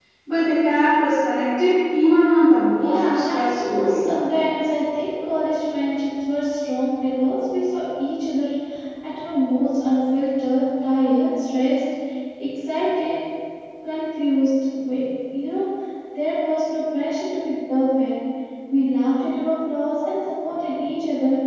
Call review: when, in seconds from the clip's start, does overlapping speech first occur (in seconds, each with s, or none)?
2.8 s